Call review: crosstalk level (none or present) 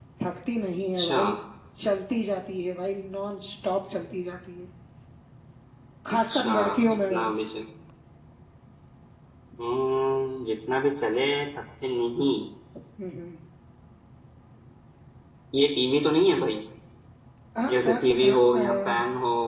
present